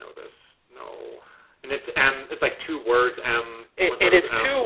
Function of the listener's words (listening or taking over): taking over